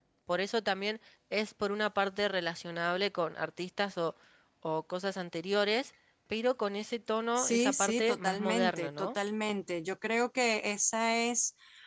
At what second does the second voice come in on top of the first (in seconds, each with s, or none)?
7.4 s